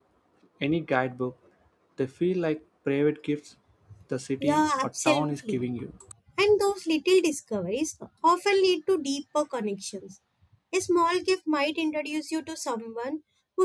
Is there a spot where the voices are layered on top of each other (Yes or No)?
Yes